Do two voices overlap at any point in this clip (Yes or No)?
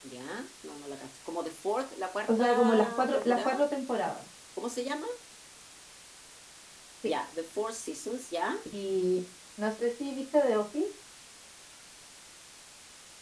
Yes